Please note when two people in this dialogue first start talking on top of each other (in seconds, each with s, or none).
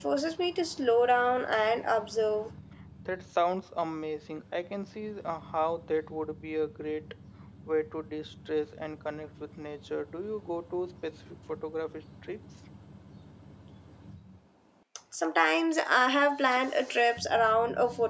none